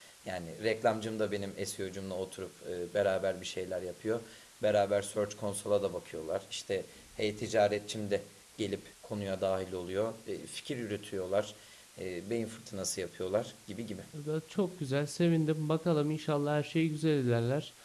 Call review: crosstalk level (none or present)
none